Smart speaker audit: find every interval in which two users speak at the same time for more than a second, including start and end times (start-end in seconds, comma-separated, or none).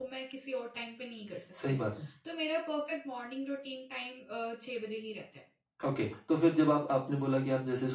none